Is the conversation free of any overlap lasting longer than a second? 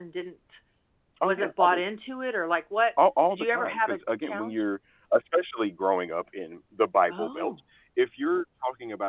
No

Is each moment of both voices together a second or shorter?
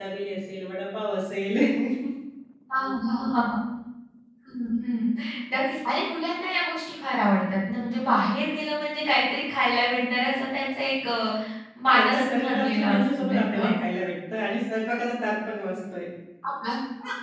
No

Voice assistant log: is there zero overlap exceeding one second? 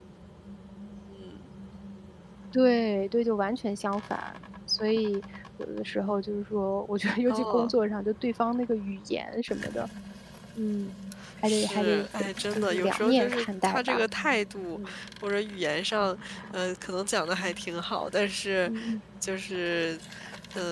No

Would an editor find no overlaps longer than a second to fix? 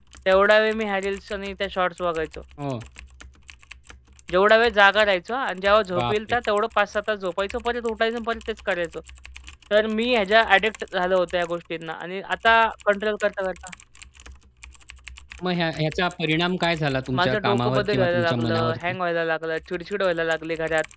No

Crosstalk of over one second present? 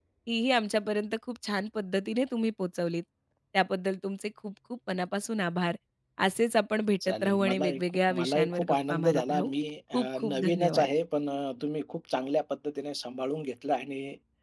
Yes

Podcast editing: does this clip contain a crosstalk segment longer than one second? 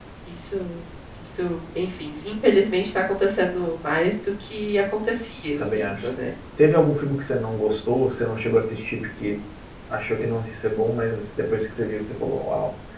No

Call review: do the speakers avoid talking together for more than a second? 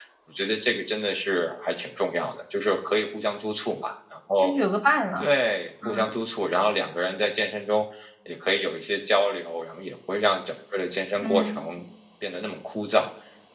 Yes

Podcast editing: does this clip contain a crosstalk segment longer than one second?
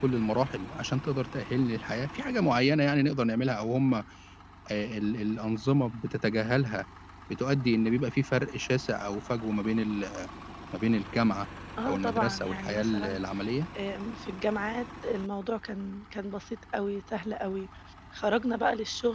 Yes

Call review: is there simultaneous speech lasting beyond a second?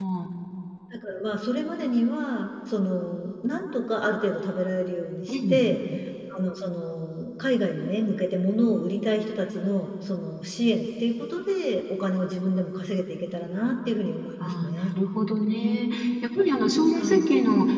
No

